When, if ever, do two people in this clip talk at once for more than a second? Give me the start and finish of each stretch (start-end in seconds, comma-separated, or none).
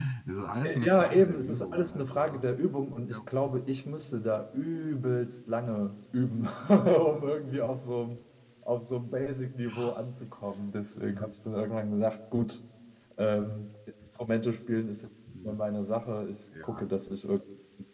0.8-2.4